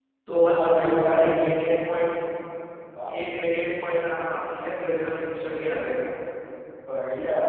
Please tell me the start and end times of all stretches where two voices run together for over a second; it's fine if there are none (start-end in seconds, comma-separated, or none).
0.6-2.2